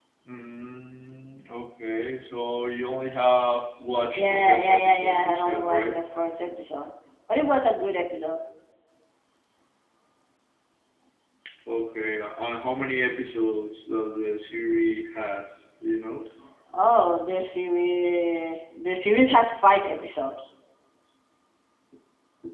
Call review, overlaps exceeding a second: present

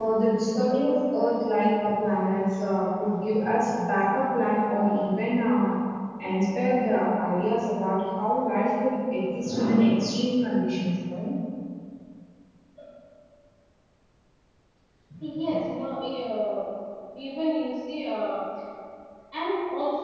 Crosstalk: none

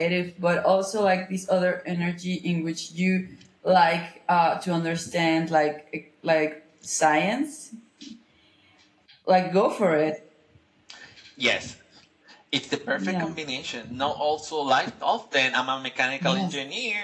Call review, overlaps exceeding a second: none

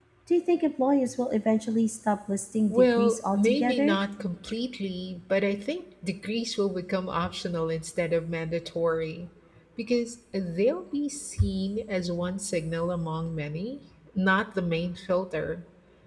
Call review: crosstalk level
present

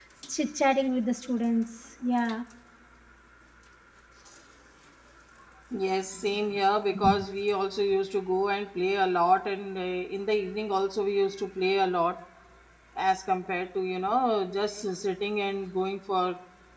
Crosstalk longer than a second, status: none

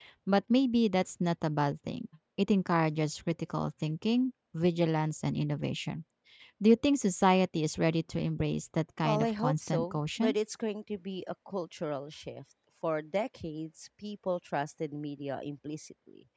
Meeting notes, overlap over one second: present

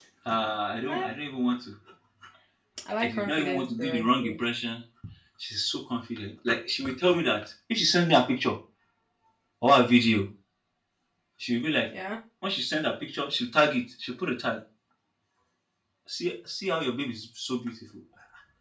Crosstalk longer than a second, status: present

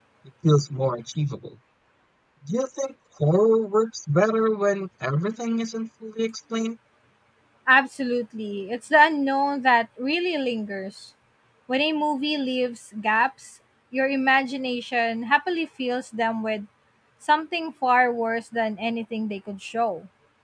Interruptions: none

